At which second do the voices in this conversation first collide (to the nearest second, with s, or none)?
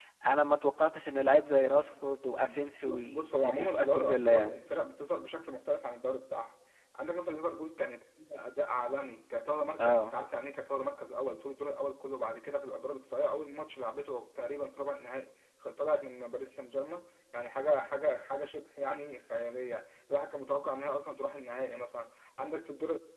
2 s